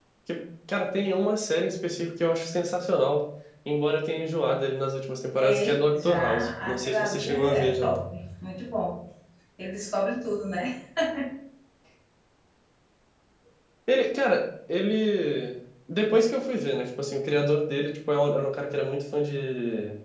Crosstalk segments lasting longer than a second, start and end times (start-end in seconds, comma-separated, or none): 5.4-7.9